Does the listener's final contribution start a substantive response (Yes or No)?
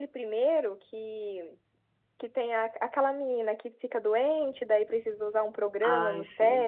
No